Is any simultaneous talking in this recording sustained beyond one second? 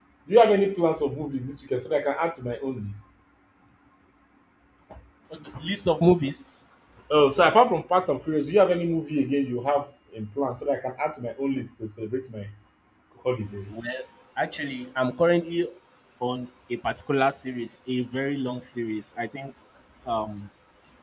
No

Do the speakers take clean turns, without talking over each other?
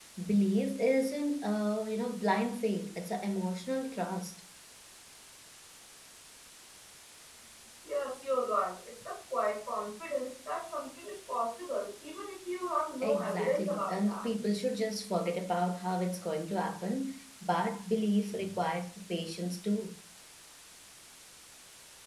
No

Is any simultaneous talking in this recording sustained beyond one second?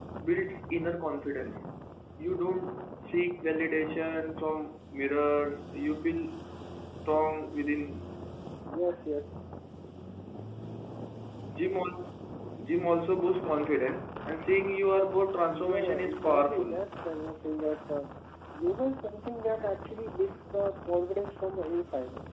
Yes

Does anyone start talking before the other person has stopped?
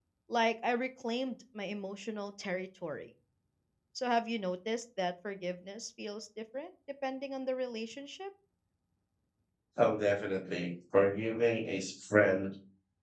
No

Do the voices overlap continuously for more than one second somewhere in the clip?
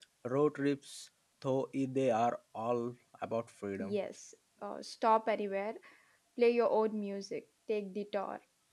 No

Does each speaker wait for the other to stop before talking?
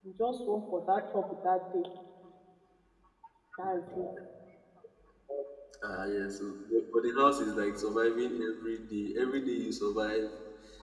Yes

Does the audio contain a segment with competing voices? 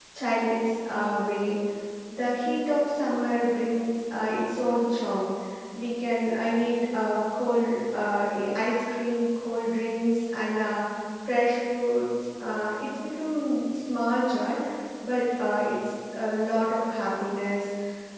No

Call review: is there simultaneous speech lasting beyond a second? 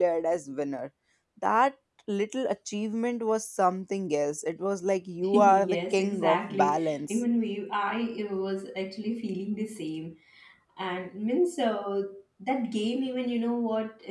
Yes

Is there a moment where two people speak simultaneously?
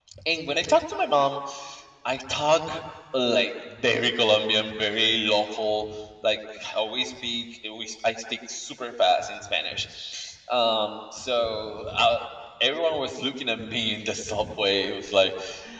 No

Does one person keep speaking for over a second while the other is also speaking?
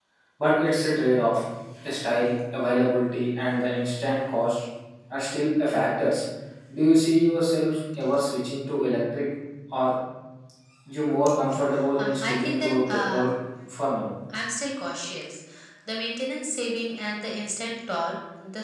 Yes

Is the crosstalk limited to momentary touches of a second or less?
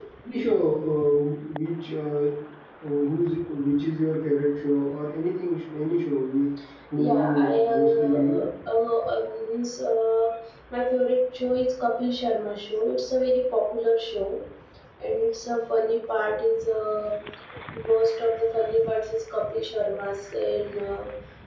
No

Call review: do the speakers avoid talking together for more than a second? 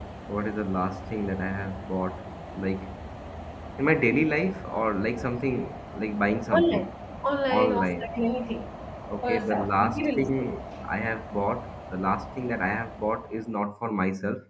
No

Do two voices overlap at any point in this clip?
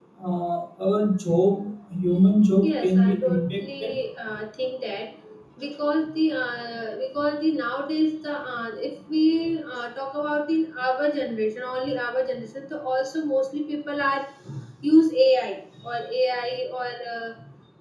Yes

